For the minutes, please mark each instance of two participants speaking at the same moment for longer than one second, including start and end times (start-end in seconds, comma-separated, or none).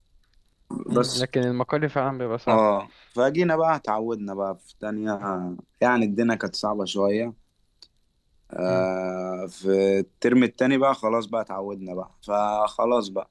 none